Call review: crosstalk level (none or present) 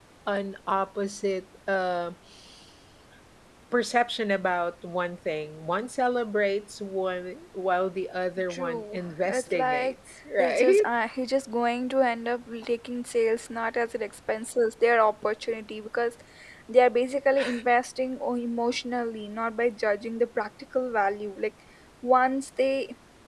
present